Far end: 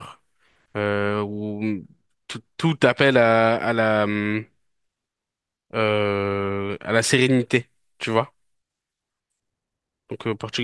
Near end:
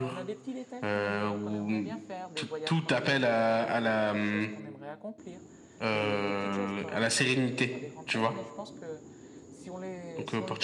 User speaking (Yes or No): Yes